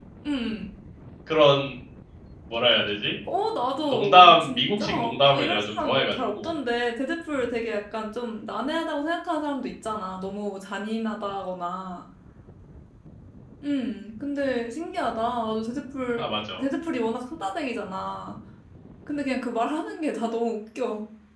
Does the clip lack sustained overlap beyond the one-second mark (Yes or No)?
No